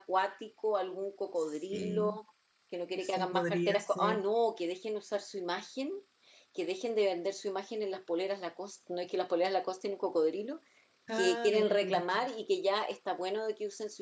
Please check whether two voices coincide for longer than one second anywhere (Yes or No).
Yes